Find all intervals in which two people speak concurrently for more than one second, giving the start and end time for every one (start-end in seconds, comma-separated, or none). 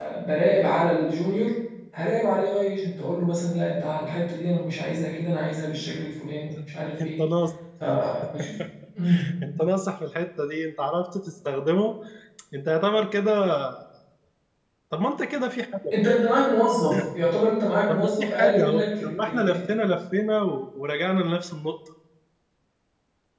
17.9-19.6